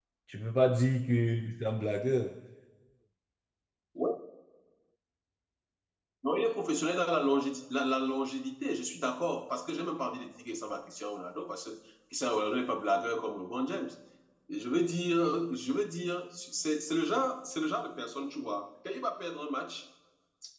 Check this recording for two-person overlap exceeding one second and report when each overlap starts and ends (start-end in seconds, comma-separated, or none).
none